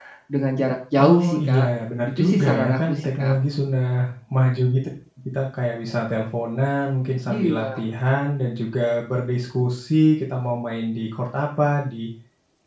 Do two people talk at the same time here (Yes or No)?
Yes